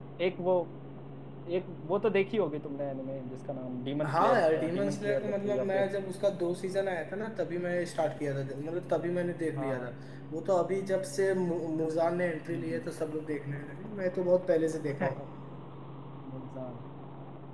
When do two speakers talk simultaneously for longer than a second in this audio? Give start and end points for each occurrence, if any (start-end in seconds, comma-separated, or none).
4.0-5.9